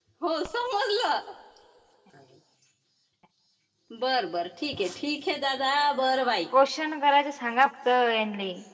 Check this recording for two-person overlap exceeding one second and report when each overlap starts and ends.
none

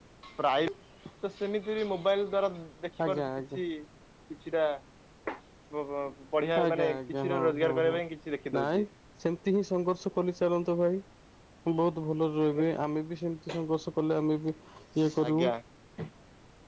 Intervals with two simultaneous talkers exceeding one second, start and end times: 6.6-7.9

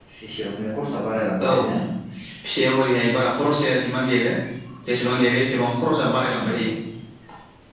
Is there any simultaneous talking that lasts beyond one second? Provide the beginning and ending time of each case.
none

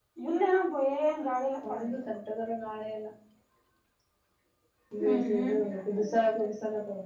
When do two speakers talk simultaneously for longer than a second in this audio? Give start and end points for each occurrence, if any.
none

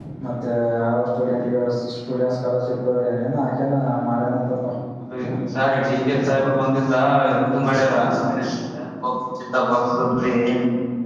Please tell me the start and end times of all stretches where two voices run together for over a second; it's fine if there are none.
none

